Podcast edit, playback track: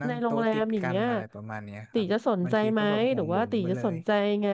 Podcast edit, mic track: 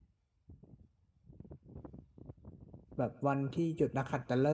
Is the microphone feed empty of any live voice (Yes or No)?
No